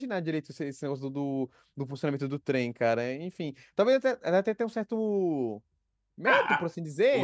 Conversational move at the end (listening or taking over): taking over